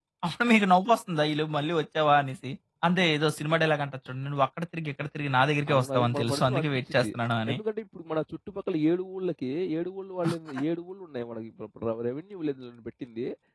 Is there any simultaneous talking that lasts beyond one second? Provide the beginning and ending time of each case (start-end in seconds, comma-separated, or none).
5.7-7.1